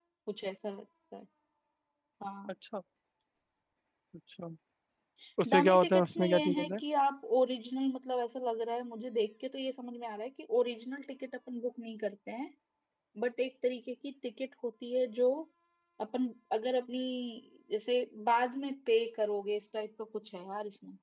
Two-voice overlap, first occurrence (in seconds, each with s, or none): 5.5 s